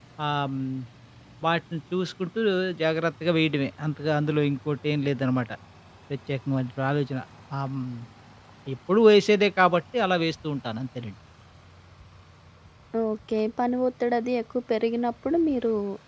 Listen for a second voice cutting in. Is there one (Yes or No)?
No